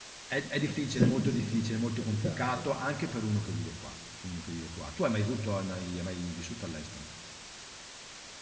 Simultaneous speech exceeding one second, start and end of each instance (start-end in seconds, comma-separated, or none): 0.9-2.8